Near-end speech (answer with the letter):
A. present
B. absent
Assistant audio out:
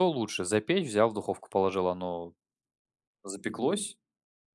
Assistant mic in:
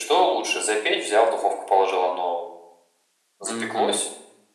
A